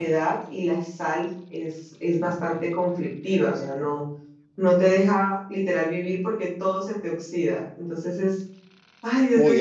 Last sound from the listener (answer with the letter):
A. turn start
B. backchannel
A